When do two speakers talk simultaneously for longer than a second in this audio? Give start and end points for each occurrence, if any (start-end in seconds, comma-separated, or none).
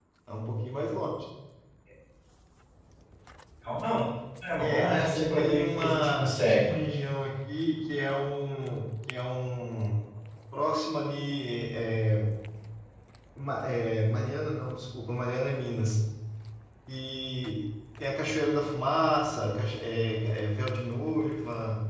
4.6-6.8